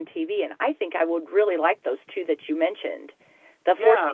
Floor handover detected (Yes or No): No